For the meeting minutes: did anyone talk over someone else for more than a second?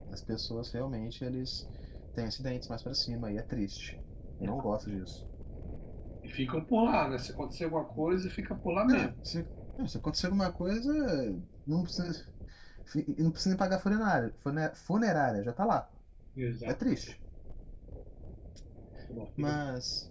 No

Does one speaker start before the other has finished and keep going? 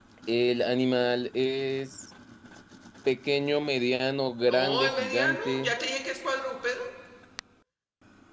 Yes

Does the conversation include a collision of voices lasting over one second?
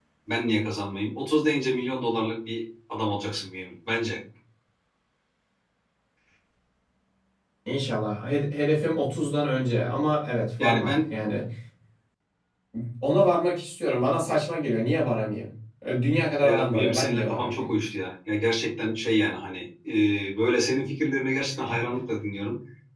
Yes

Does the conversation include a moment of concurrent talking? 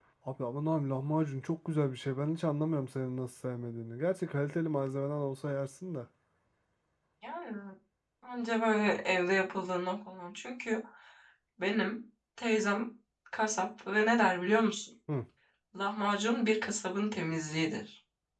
No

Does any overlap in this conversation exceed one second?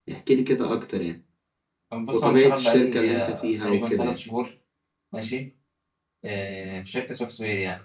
Yes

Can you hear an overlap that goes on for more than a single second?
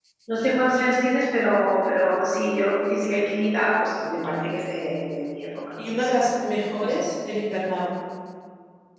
No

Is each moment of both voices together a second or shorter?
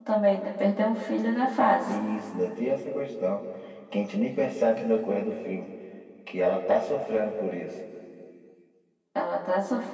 Yes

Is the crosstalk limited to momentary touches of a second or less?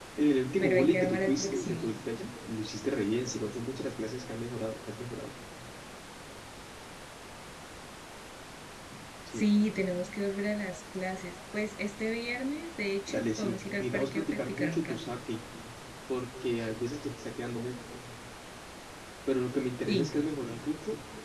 No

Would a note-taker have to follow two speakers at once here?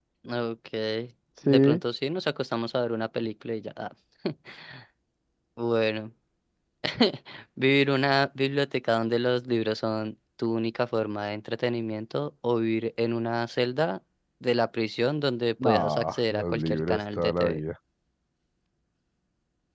Yes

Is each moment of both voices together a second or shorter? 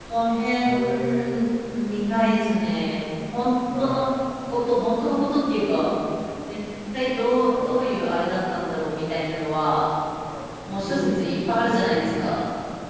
No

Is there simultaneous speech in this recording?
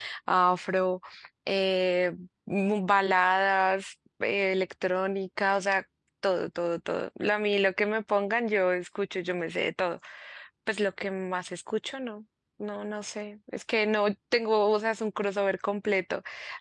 No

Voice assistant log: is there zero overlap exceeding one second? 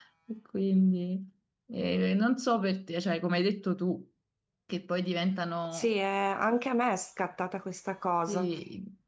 Yes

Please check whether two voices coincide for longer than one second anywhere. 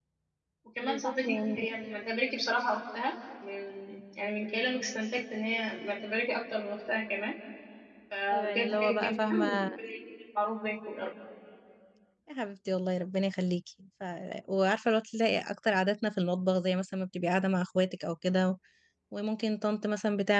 Yes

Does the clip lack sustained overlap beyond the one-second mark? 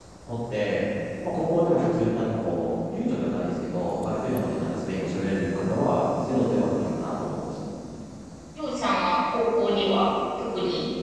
Yes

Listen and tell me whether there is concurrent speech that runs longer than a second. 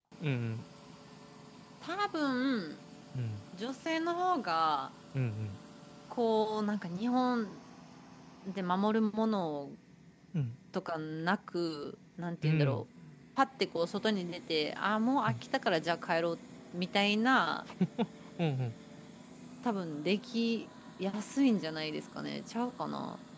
No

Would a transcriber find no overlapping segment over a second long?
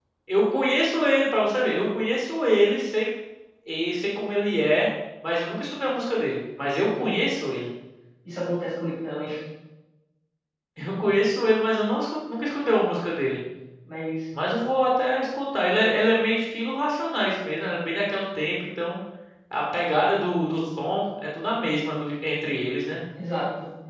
Yes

